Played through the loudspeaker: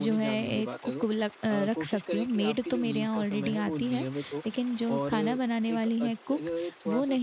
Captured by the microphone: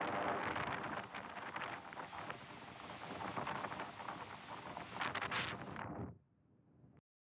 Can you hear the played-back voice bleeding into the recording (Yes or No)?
No